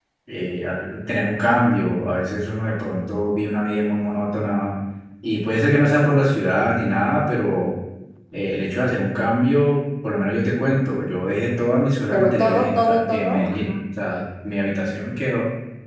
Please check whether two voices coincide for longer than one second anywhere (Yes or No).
Yes